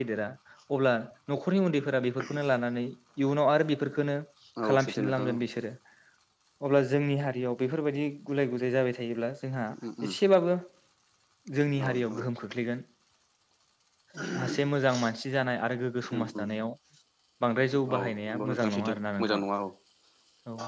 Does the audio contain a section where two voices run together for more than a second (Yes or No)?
Yes